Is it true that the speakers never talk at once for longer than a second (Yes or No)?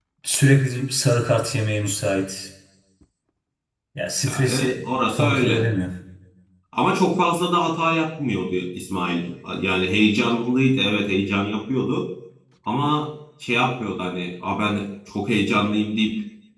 No